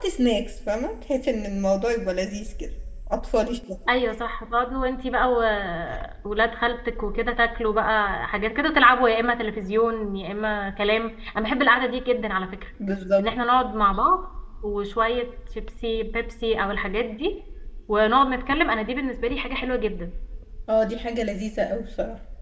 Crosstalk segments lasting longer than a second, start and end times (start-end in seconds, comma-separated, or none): none